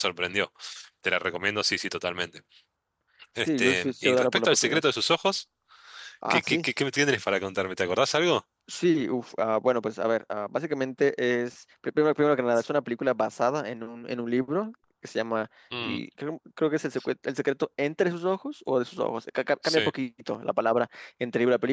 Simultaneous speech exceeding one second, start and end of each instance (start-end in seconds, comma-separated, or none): 3.5-4.8